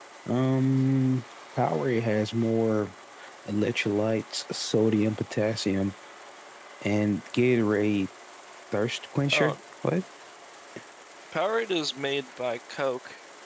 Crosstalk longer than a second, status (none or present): none